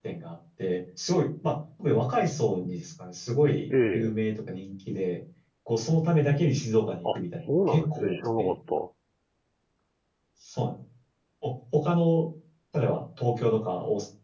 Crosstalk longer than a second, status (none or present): present